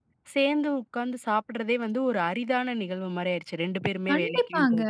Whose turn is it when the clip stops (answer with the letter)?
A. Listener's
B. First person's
A